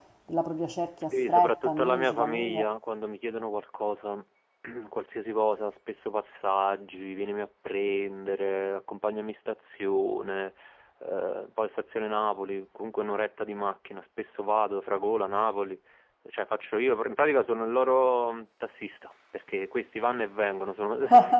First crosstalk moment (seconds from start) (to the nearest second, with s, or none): 1 s